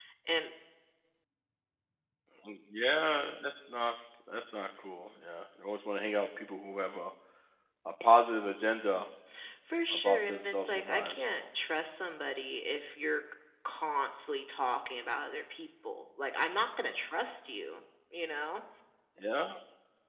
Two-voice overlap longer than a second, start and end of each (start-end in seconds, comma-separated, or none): 9.9-11.4